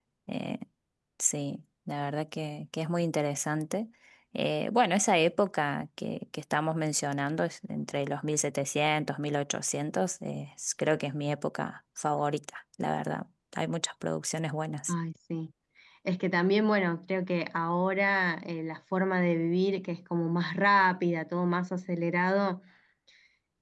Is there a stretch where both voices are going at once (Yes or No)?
No